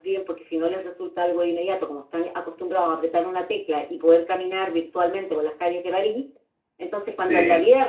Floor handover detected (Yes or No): No